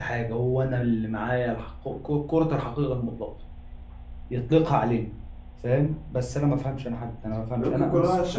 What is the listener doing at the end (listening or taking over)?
taking over